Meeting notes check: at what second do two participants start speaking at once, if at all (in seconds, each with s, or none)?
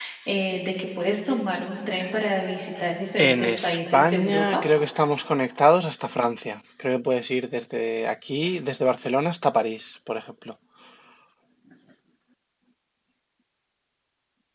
3.2 s